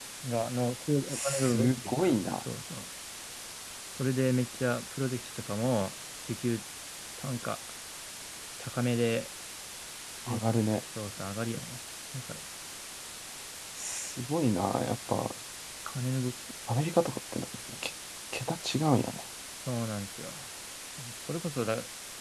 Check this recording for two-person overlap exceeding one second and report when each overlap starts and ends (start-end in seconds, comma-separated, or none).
1.1-2.4